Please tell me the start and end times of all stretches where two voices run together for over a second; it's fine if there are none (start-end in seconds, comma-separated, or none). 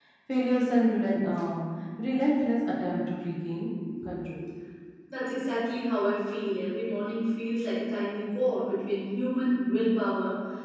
none